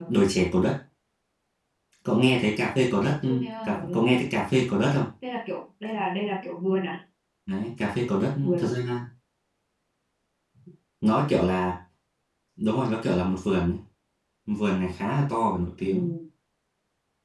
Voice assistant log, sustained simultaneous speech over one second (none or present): none